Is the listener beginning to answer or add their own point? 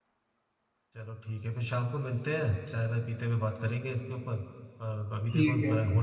No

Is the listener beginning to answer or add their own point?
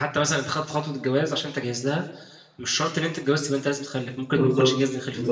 Yes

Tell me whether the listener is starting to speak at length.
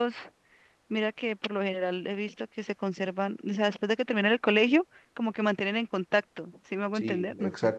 Yes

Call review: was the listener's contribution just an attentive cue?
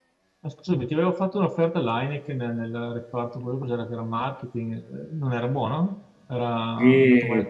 No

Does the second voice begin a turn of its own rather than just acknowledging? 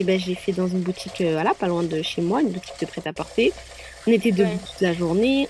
No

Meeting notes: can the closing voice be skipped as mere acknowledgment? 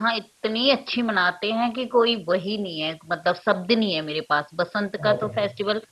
Yes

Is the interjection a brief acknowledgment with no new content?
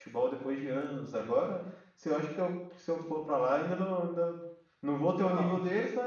Yes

